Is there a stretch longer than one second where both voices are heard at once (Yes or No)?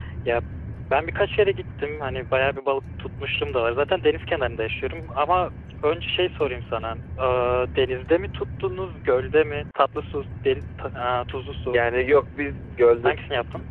No